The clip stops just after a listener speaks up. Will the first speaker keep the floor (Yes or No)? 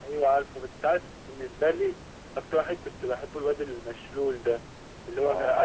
Yes